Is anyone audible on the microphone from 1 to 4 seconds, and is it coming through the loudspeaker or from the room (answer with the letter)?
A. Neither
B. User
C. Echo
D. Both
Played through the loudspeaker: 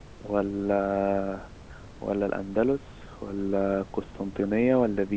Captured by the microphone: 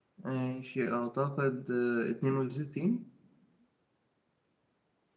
B